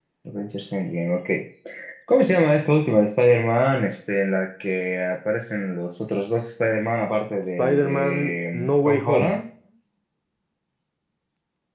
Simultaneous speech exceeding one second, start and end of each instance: 7.6-9.4

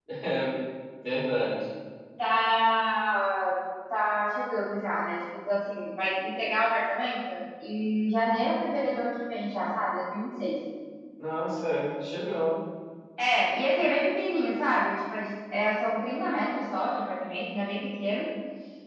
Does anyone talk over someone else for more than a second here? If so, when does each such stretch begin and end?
none

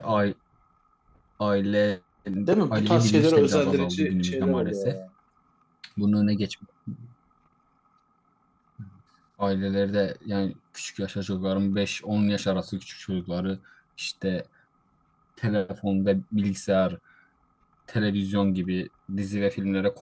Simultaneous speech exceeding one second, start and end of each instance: 2.7-5.0

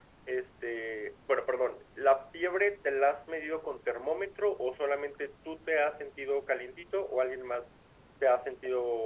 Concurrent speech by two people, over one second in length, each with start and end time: none

